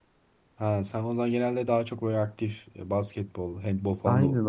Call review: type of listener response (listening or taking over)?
taking over